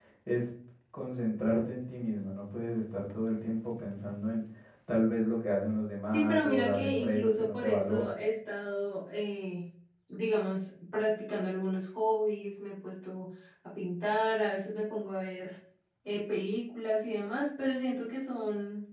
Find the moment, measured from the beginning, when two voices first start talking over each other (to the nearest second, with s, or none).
6 s